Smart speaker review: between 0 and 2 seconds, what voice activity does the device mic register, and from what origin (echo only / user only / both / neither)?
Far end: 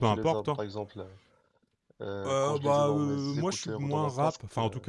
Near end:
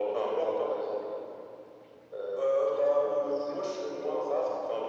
echo only